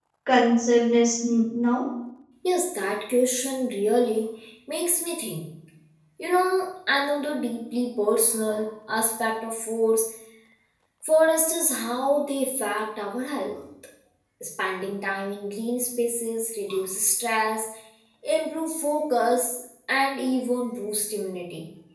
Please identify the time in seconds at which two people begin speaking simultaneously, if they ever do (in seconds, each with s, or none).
none